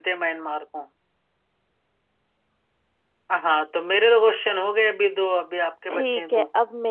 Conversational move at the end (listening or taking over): taking over